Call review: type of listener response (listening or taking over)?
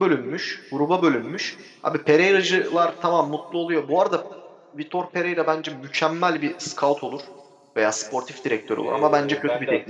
taking over